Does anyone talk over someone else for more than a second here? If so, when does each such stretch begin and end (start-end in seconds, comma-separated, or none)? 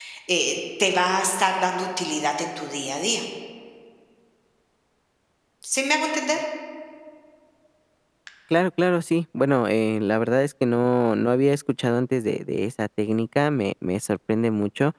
none